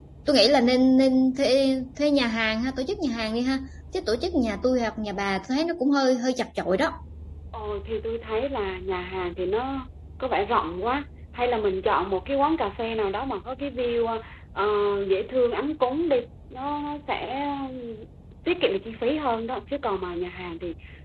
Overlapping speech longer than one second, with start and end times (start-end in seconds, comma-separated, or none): none